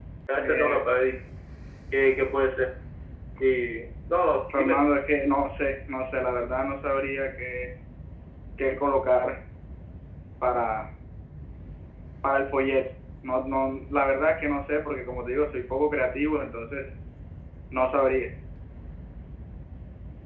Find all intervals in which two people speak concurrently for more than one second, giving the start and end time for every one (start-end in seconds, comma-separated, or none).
none